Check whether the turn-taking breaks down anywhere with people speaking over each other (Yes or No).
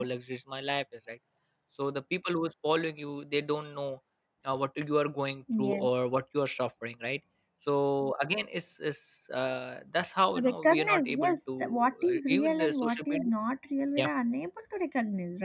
Yes